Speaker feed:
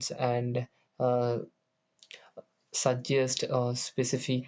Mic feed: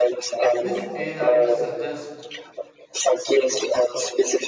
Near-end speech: present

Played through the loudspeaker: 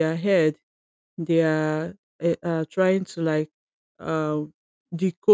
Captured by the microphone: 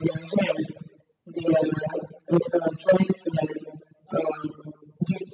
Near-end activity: none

